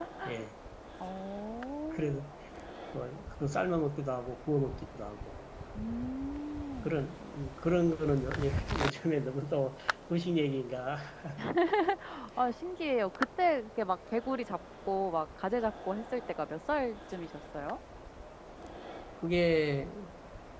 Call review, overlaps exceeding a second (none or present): none